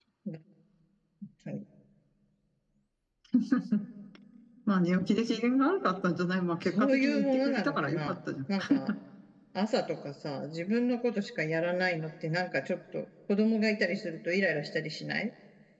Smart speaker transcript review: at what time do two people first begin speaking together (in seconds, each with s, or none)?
6.6 s